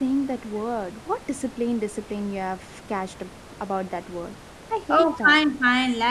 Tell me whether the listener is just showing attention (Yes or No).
No